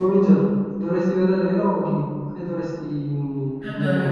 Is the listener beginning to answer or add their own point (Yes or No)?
No